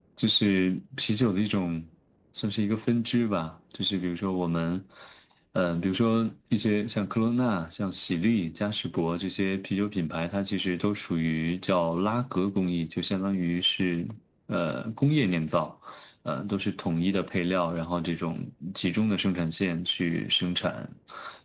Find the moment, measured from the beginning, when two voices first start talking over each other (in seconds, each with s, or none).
none